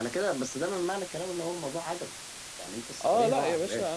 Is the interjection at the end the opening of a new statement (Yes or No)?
Yes